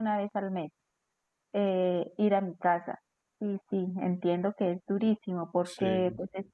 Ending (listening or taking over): listening